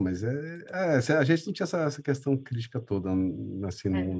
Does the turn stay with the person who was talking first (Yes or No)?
Yes